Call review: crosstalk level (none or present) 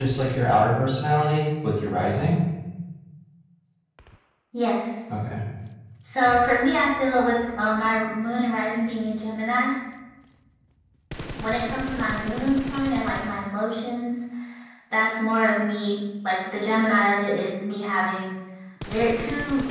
none